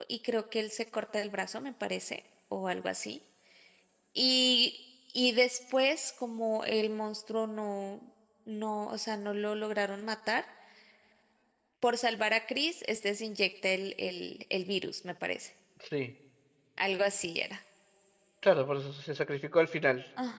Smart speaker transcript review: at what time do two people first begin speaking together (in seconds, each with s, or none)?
none